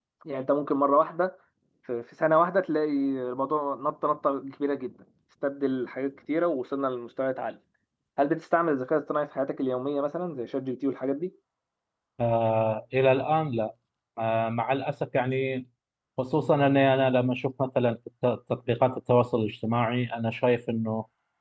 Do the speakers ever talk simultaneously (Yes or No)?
No